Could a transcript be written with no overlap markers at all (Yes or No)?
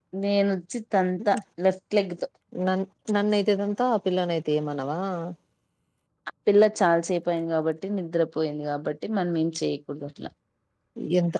Yes